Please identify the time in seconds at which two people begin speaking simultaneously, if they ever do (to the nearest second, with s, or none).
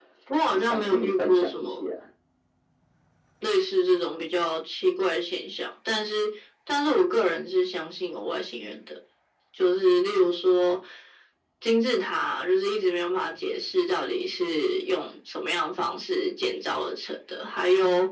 1 s